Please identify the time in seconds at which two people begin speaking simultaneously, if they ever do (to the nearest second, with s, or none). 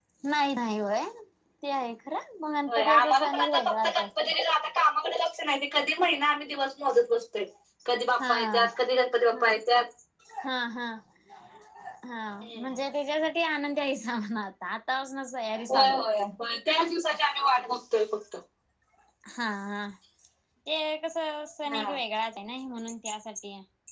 3 s